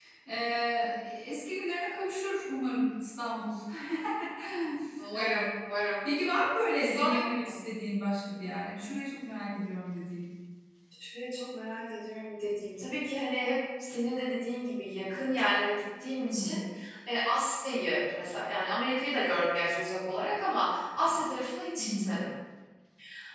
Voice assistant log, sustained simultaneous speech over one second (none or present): none